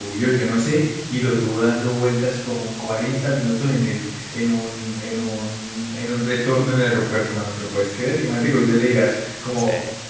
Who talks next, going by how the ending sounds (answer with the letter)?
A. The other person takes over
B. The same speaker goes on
B